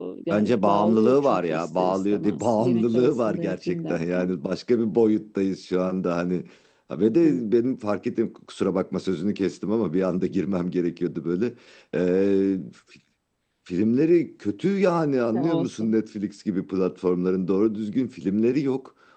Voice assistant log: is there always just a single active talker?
No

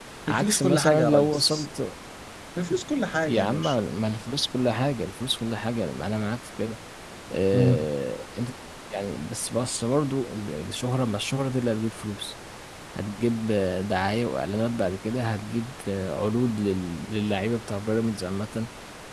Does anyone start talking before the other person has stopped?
Yes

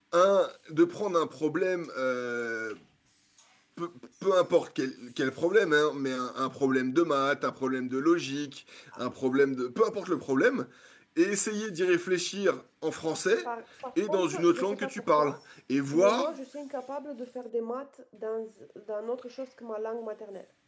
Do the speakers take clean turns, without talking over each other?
No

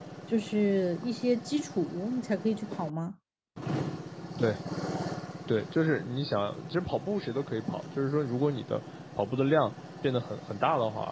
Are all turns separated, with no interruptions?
Yes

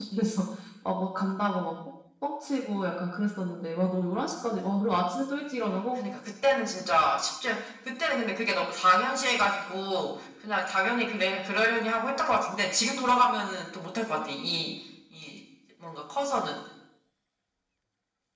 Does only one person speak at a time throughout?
Yes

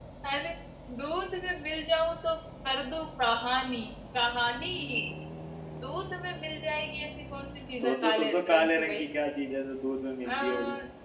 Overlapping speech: Yes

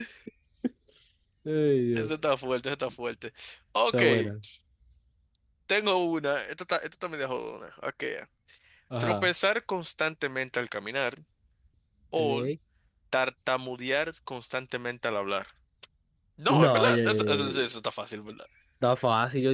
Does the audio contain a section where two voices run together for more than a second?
Yes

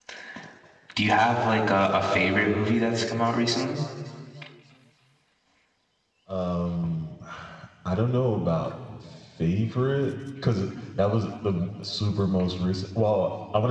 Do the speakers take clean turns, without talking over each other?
Yes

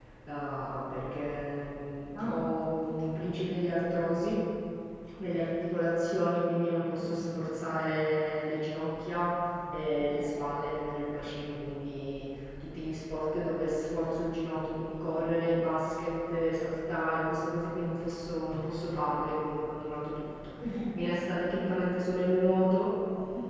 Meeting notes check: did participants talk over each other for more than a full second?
No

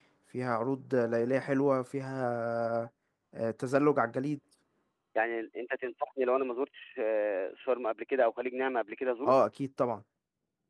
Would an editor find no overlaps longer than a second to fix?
Yes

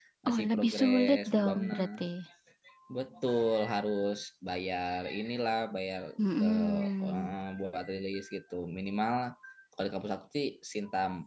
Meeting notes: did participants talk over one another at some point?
Yes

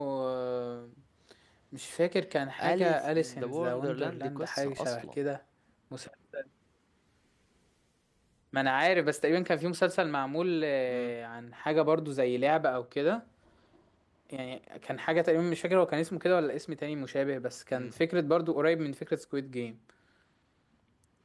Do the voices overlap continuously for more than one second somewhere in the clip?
Yes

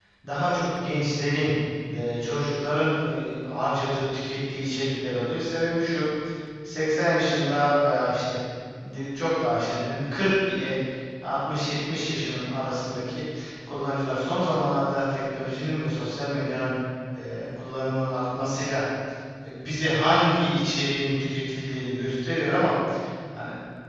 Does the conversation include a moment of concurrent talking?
No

